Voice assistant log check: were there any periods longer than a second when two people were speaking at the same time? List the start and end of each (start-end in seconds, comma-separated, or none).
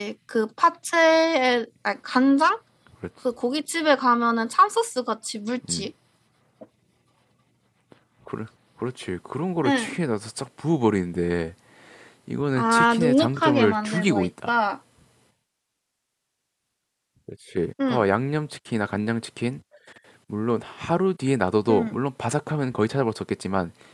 12.6-14.6